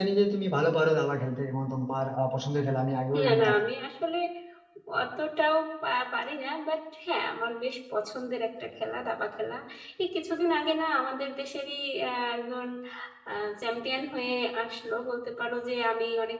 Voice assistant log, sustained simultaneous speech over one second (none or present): none